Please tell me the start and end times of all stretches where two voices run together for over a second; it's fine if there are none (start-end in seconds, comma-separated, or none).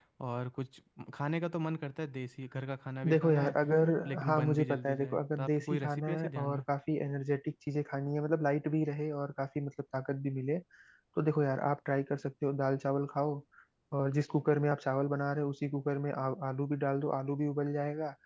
4.2-6.6